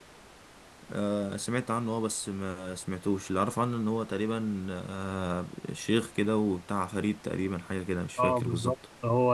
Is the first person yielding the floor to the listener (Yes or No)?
Yes